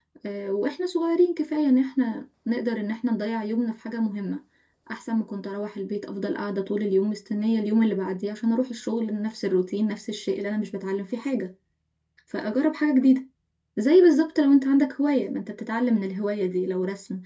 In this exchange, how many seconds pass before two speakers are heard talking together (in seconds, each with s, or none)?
none